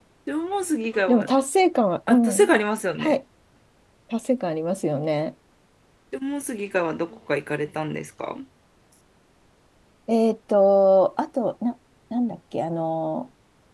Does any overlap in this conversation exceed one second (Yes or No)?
No